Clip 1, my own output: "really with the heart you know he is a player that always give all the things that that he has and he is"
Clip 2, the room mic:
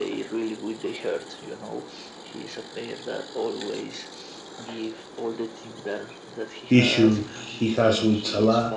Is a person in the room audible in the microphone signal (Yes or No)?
Yes